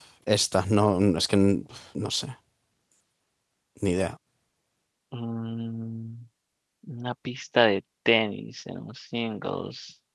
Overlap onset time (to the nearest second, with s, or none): none